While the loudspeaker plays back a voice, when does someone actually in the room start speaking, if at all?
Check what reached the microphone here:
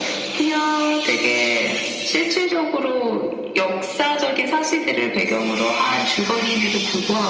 none

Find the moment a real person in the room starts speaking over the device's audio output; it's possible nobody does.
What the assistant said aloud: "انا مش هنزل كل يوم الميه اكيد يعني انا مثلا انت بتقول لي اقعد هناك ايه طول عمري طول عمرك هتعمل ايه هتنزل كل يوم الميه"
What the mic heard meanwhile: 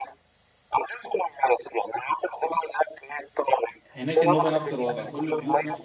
4 s

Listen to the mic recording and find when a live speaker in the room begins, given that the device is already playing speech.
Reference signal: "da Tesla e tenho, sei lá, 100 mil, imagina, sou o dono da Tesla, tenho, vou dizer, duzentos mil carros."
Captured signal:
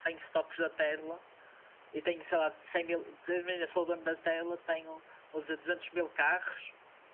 none

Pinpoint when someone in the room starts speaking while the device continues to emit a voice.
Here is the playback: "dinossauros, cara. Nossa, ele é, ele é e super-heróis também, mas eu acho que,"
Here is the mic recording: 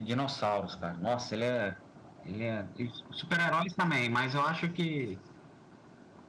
none

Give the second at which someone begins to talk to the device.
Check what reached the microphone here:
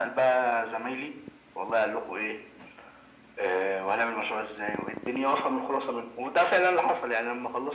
none

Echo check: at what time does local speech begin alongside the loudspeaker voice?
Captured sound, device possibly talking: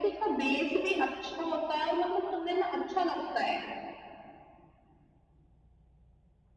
none

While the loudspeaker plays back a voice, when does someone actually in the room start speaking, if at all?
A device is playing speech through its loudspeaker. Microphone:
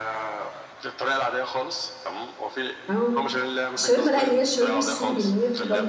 3 s

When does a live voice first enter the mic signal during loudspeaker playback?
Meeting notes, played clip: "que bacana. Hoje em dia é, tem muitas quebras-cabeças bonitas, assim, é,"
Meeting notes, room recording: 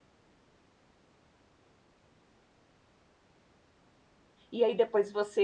5 s

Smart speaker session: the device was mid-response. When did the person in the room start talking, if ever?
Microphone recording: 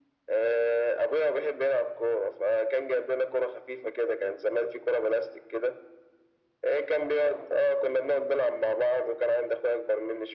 none

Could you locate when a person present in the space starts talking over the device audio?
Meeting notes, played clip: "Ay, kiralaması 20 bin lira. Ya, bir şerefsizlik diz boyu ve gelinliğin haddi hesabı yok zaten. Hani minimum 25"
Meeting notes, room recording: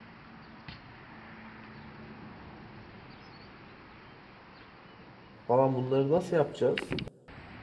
5 s

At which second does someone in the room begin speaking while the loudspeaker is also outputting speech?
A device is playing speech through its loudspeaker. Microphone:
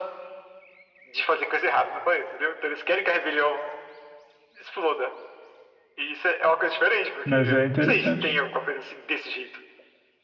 7 s

